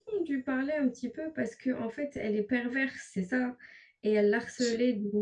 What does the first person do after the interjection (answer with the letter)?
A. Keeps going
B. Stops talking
A